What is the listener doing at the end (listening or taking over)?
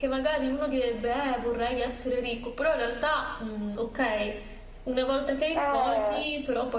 listening